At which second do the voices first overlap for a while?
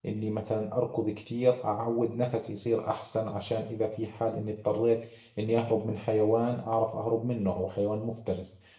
none

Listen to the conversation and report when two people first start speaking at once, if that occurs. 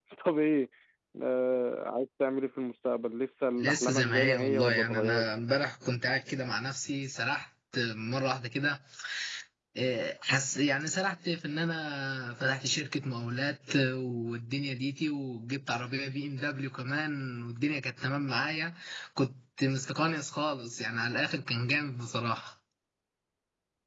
4 s

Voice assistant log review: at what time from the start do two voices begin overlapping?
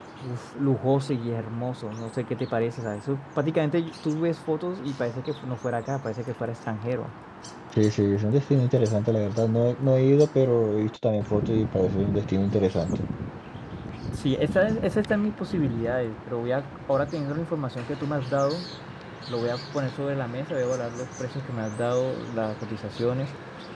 none

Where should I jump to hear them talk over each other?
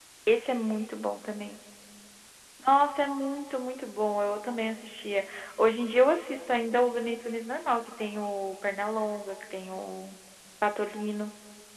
none

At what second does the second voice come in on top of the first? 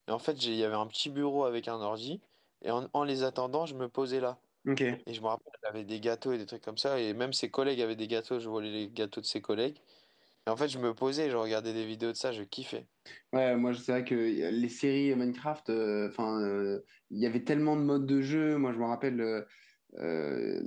none

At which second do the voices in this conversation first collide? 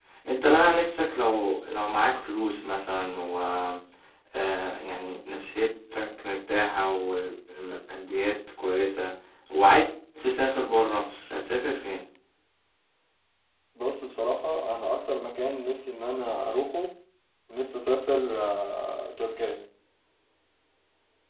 none

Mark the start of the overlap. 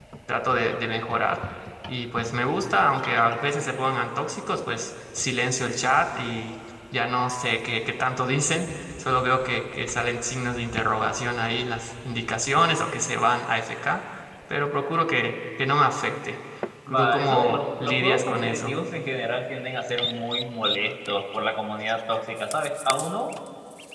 17 s

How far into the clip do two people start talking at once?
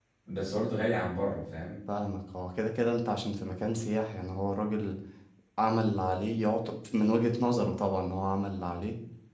none

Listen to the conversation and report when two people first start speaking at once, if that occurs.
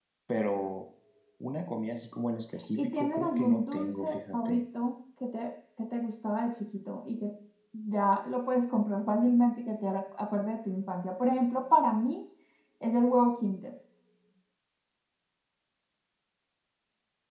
3 s

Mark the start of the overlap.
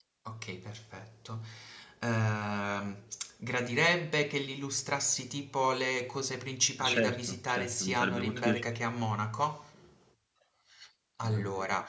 7 s

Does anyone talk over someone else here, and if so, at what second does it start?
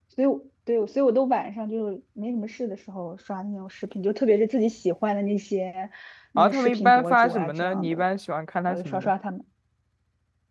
6 s

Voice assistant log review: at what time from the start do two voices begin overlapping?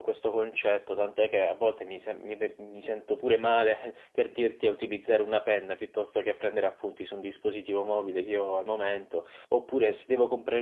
none

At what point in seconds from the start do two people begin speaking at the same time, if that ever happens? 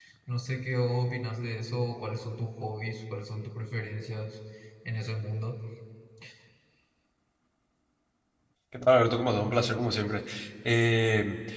none

